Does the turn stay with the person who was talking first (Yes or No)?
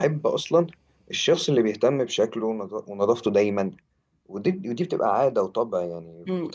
No